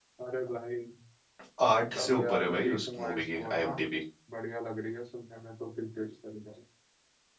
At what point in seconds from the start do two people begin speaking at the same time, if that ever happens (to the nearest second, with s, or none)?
2 s